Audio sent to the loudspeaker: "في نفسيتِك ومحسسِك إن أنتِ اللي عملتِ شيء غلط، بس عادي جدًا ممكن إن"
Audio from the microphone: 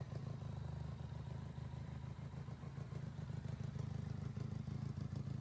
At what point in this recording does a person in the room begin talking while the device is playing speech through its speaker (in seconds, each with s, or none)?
none